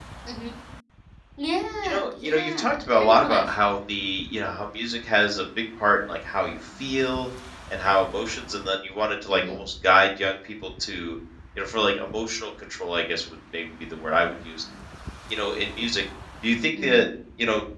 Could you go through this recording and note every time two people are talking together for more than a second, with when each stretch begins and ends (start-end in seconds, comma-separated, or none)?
1.8-3.5